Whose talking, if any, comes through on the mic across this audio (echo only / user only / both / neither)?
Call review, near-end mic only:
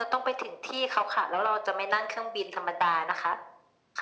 echo only